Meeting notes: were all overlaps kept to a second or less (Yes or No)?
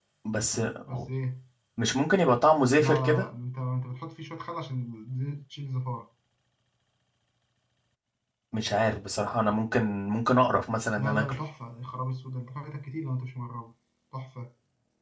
Yes